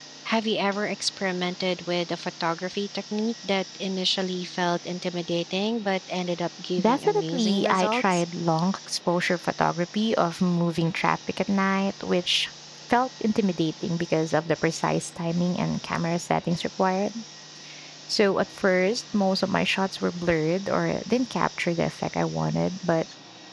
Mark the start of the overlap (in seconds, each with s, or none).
6.8 s